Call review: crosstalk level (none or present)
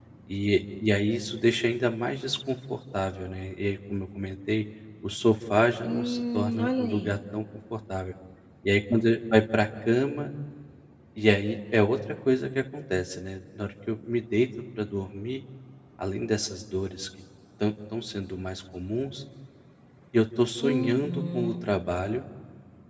present